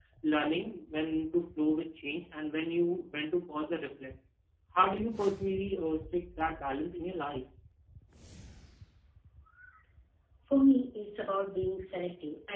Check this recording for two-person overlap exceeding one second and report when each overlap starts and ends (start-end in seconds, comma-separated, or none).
none